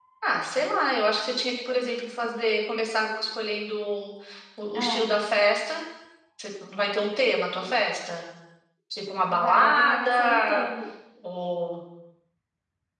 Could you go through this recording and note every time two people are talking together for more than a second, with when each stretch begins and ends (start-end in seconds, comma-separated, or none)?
9.4-10.7